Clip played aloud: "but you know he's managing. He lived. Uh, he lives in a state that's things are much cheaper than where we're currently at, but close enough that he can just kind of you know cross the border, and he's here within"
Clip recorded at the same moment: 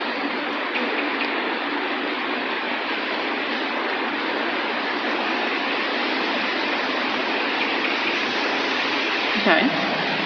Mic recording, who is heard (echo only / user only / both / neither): user only